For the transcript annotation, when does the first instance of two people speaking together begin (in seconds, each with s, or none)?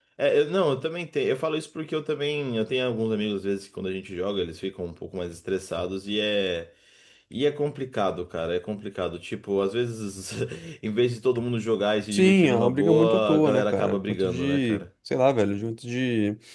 12.1 s